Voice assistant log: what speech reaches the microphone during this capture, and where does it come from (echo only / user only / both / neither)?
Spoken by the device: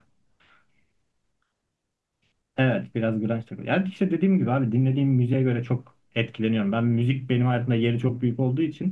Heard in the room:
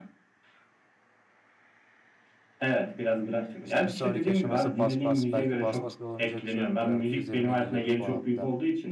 both